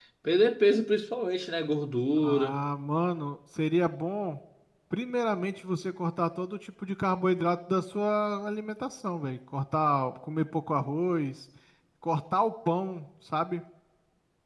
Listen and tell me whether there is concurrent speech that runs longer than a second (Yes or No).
No